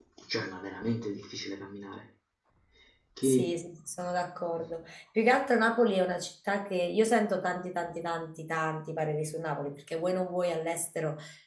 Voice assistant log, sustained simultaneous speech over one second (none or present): none